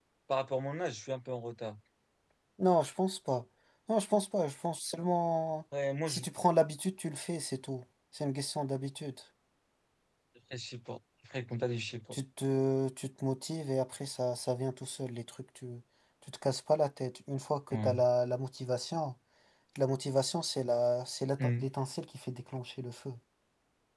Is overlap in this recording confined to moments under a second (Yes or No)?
Yes